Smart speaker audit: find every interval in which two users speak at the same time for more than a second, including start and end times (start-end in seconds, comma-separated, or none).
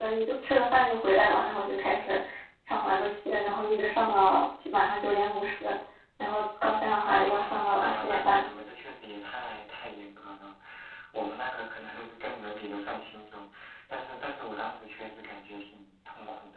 7.1-8.4